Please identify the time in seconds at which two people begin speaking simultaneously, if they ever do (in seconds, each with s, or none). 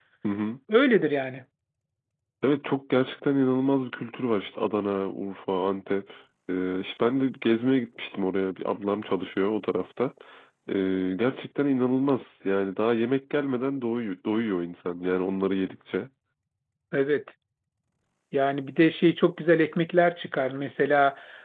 none